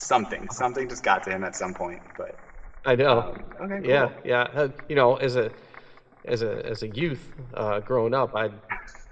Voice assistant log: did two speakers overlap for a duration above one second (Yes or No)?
No